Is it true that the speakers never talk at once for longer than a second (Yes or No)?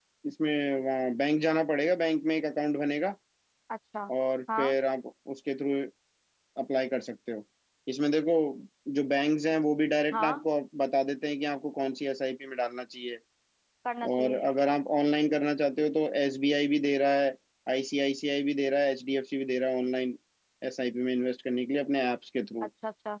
Yes